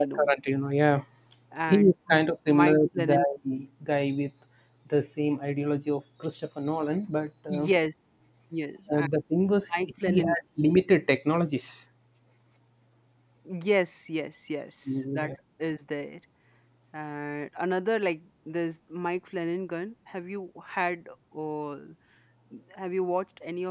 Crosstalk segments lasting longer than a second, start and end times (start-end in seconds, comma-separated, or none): 1.7-3.2